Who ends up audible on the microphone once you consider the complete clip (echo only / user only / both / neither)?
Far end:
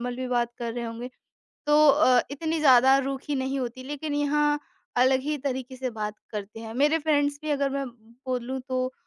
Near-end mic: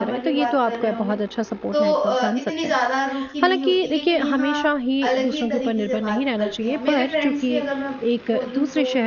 both